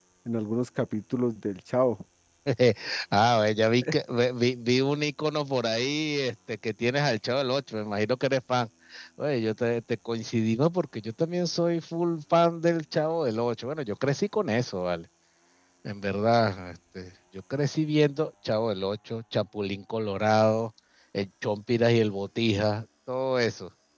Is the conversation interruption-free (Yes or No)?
Yes